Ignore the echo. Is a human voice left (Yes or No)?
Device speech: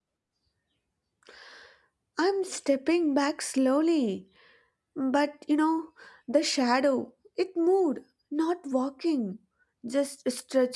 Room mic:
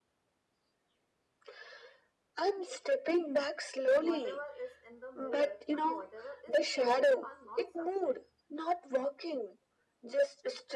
Yes